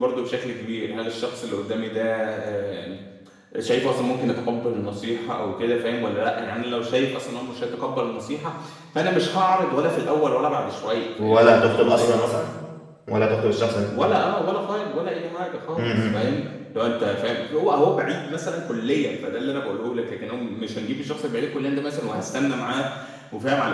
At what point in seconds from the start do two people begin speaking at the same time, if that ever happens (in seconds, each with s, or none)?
11.2 s